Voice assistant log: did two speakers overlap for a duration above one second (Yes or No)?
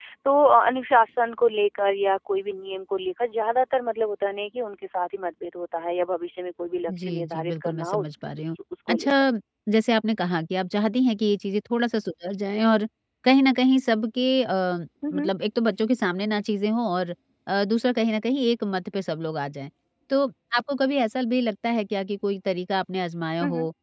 Yes